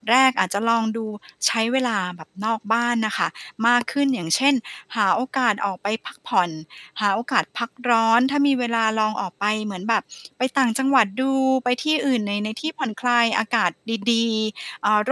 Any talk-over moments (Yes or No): No